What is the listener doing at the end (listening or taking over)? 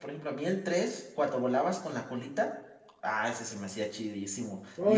taking over